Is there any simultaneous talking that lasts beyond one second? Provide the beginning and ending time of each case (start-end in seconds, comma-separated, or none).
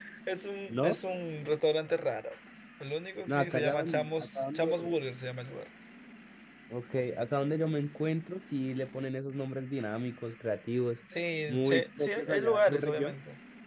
3.3-5.0, 11.7-13.2